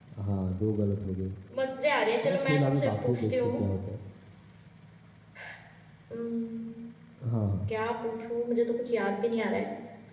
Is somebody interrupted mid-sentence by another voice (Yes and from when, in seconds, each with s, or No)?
Yes, from 2.2 s